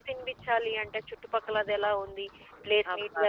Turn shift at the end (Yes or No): No